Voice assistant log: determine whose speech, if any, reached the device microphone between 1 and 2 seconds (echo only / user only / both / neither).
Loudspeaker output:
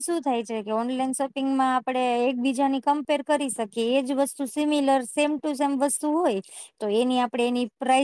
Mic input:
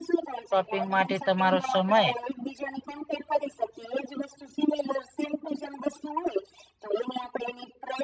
both